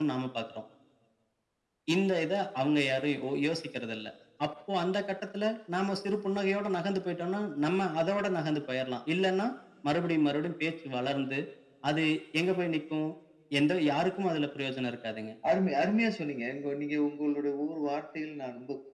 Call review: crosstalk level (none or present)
none